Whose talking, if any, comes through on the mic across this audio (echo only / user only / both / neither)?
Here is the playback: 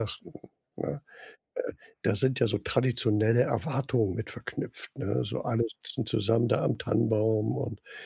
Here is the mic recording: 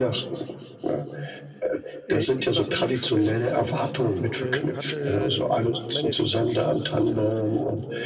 both